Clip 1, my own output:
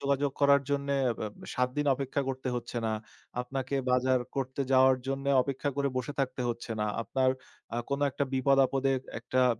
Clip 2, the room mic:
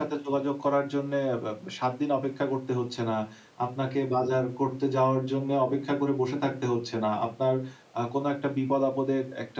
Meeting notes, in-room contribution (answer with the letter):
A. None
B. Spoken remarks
A